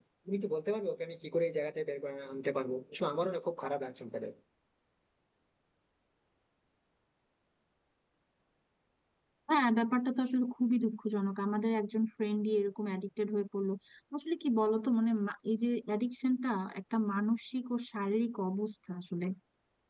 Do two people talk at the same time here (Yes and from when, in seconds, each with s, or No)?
No